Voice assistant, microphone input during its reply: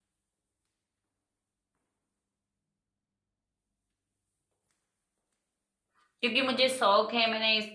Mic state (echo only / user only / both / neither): user only